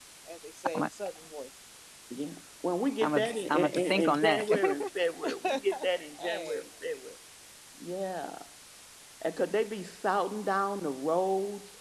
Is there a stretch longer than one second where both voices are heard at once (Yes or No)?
Yes